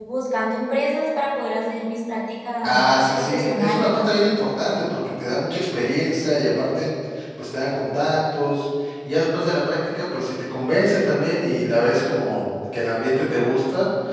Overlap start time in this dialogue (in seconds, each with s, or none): 2.6 s